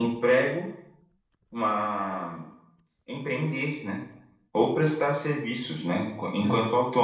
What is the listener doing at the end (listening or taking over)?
listening